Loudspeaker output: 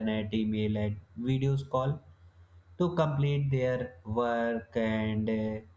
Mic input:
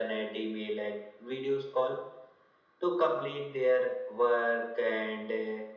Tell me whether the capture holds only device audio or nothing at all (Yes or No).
Yes